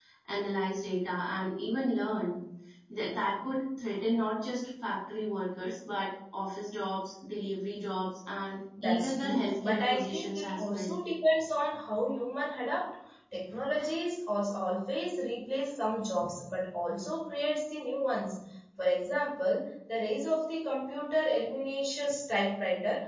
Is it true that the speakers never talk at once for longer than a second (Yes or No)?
No